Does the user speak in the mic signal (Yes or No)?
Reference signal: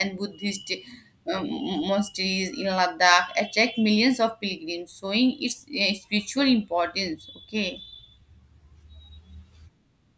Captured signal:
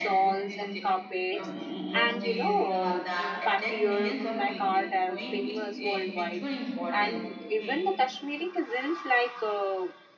Yes